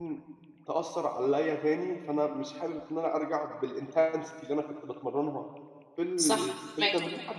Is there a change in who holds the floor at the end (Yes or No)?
No